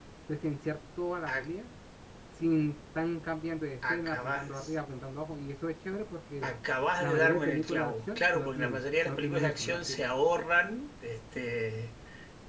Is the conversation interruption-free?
No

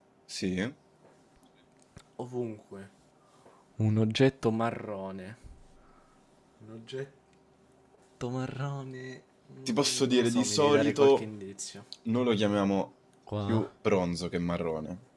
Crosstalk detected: Yes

